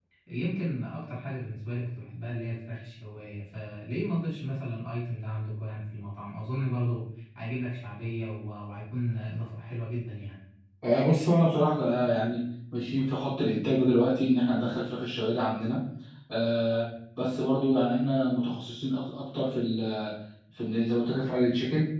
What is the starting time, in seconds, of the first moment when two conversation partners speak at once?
none

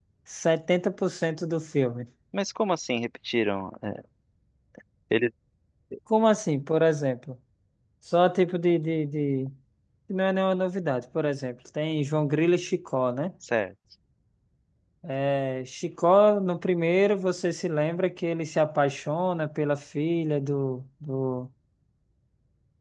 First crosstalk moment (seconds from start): none

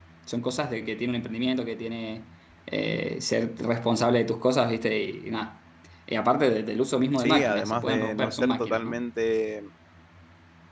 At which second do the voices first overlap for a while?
7.2 s

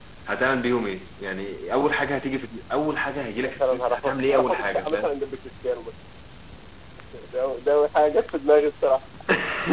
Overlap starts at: 3.4 s

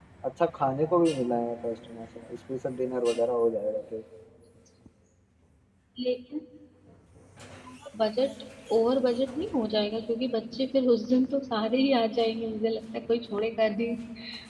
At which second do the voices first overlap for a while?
none

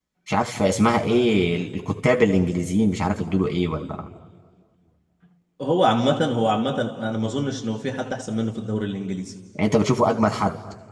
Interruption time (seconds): none

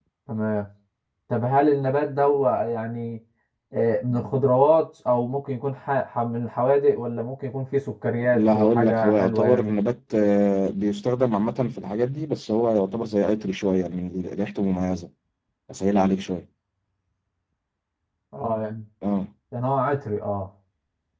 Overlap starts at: 8.3 s

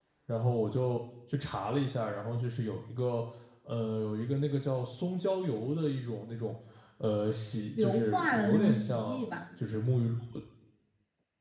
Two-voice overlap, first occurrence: 7.8 s

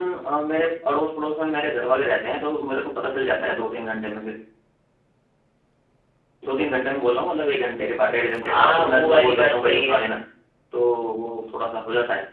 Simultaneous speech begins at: 8.4 s

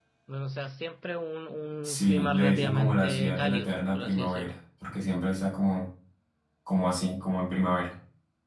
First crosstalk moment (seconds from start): 1.8 s

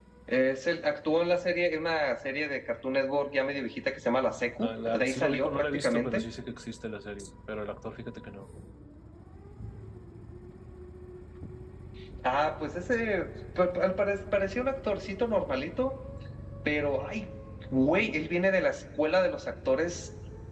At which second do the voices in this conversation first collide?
4.6 s

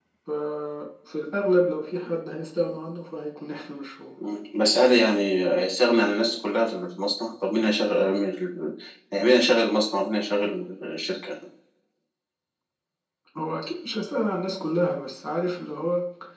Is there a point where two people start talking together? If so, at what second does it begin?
none

